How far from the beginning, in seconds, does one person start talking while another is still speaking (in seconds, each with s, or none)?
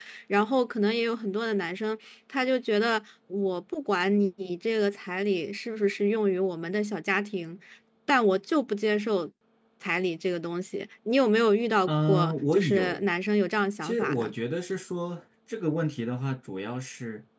11.9 s